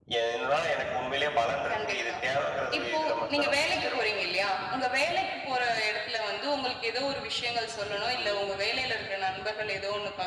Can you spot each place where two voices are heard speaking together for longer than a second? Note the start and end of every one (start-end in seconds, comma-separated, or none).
2.8-4.0